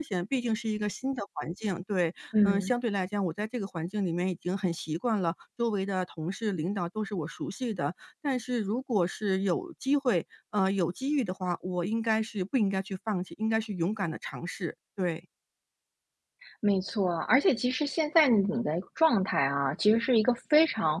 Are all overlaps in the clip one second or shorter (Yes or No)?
Yes